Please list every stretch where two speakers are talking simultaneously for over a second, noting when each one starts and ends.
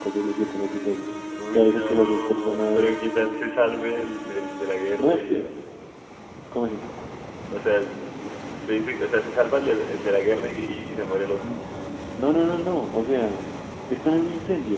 1.5-3.0

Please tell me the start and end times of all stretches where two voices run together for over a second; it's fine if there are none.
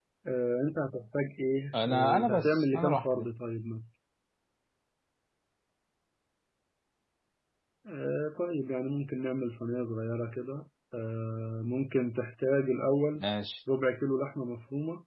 1.8-3.3

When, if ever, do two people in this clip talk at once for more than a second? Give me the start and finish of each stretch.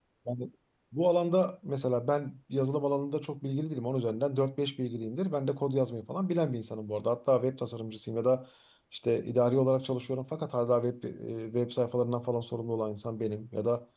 none

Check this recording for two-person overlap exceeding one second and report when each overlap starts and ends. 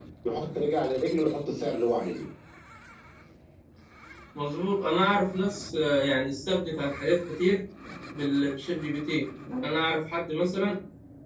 none

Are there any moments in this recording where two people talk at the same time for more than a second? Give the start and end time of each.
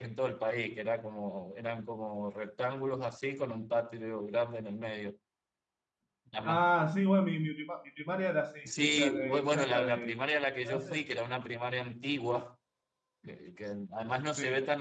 8.6-10.1

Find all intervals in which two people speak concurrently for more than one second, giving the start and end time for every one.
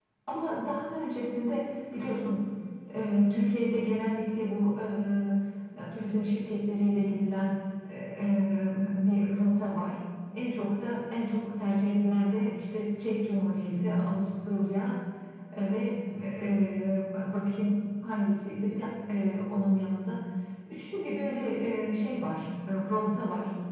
none

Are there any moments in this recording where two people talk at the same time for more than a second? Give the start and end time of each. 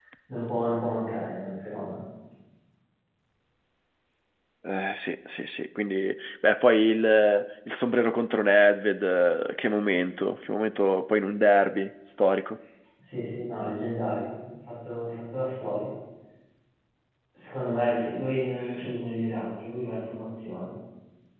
none

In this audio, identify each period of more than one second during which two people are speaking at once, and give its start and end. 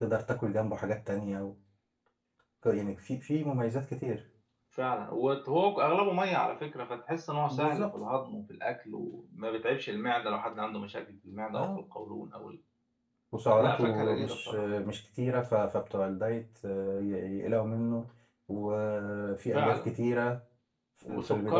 13.5-14.7

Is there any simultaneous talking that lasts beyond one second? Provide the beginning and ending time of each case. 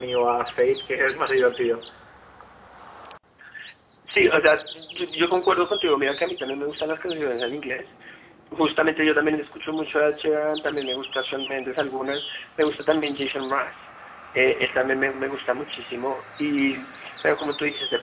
none

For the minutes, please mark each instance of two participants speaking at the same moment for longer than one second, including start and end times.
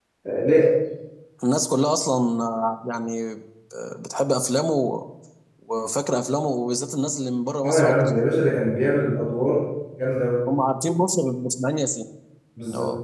none

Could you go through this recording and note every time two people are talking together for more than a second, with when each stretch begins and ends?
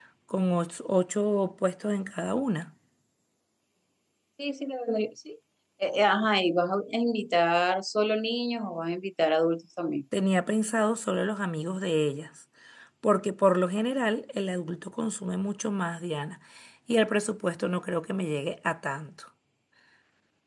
none

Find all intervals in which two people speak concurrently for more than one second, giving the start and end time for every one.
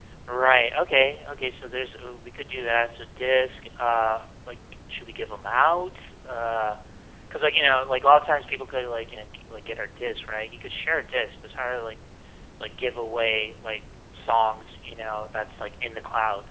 none

